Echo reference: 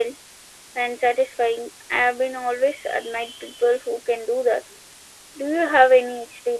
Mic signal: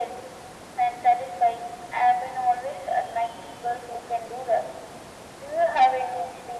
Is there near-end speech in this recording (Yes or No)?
No